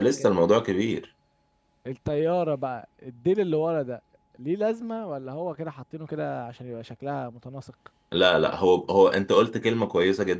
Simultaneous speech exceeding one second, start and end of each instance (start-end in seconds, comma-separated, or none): none